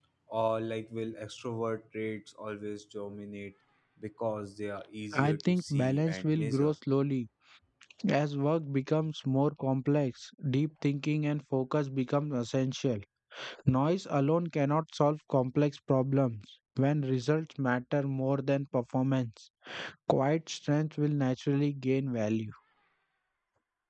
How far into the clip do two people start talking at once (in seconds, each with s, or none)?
5.1 s